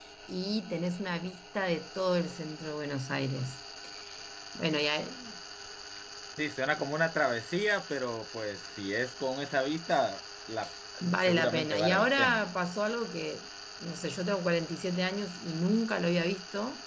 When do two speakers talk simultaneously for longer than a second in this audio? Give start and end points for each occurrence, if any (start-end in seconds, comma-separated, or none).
11.2-12.4